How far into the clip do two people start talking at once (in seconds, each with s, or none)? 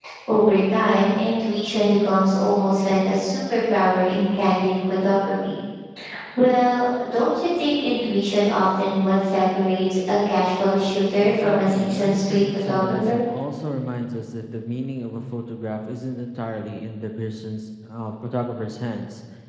11.2 s